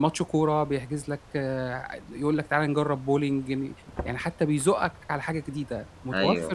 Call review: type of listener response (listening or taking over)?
listening